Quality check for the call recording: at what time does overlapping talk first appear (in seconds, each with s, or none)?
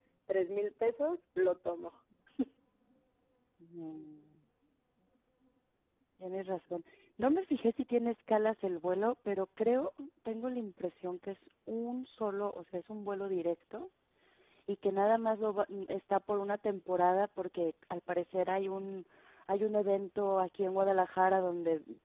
none